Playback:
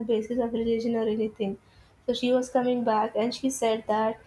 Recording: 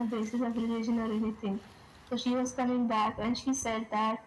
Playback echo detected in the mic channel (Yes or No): Yes